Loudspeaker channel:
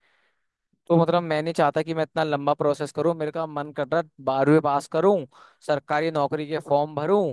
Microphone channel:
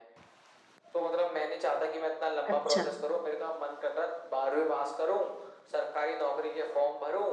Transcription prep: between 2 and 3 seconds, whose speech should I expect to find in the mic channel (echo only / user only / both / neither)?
both